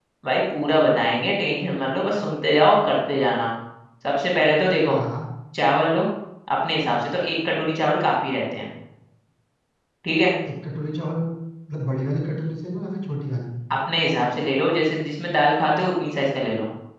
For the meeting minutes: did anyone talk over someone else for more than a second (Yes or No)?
No